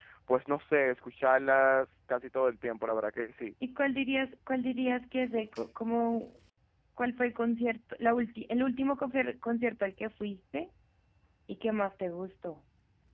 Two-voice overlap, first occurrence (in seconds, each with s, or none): none